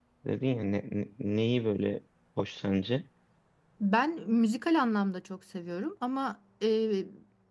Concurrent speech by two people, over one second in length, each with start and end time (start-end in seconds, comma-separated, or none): none